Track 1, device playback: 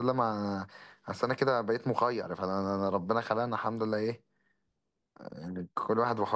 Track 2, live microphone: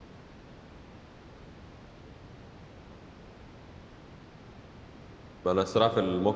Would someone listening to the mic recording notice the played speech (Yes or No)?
No